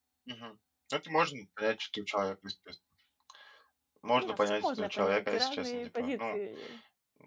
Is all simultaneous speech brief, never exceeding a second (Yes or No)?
No